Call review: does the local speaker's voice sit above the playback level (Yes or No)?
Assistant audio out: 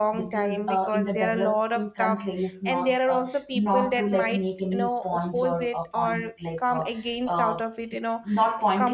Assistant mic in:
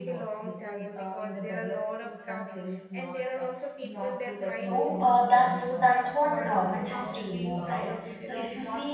Yes